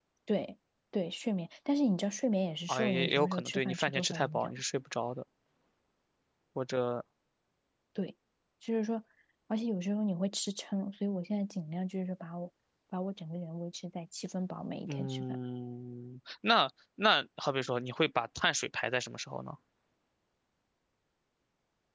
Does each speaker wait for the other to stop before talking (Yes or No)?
No